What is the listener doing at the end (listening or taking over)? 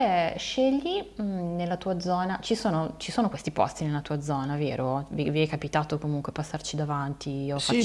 taking over